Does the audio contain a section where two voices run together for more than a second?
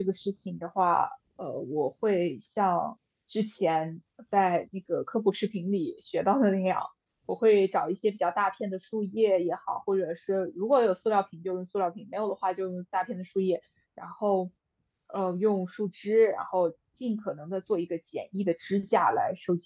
No

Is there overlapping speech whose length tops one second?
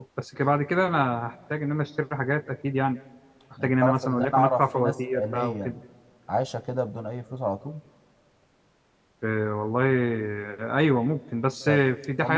Yes, from 3.6 s

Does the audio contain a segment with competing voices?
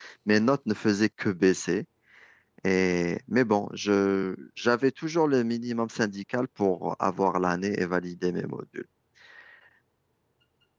No

